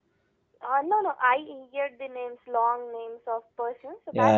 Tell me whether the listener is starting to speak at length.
Yes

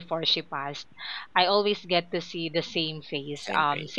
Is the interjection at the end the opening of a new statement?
No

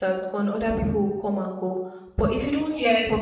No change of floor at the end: Yes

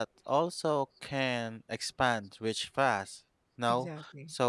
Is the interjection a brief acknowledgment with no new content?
Yes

